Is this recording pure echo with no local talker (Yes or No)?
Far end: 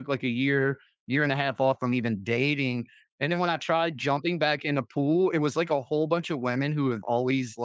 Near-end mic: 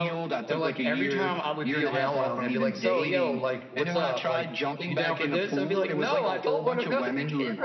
No